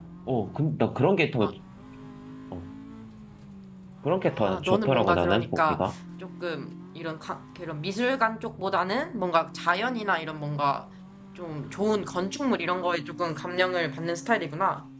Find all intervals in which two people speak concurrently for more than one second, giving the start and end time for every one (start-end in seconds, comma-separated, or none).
4.3-6.0